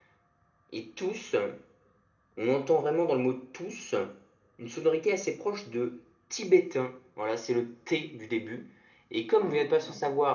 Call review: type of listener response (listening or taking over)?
listening